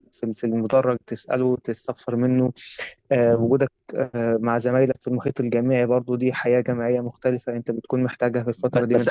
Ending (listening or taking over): taking over